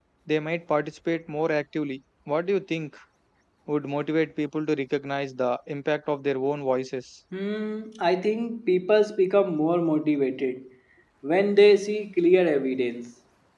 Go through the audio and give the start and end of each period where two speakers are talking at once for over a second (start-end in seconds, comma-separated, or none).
none